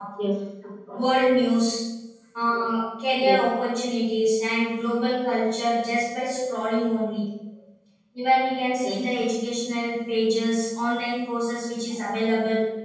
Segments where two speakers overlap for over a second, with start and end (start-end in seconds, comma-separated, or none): none